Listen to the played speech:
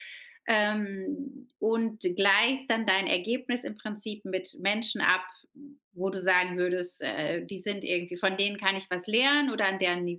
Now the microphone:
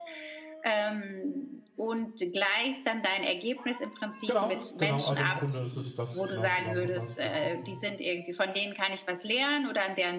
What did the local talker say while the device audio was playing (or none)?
Genau, genau. Also, im Grunde ist es das genau zusammengefasst, richtig, ja.